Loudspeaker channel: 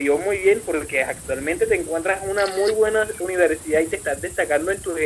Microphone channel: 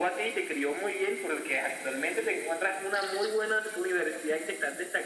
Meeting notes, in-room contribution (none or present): none